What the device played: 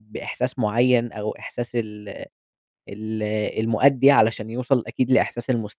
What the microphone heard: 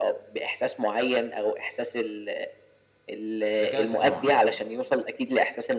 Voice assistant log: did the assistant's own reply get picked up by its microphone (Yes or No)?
Yes